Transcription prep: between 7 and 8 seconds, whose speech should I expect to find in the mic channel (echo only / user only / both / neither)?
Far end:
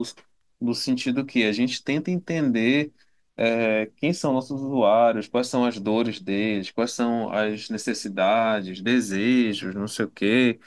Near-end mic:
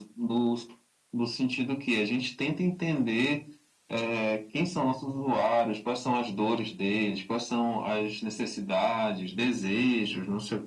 echo only